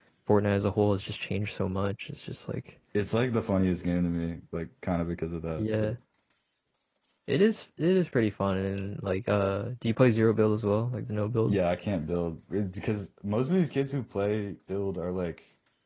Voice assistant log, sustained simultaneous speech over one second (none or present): none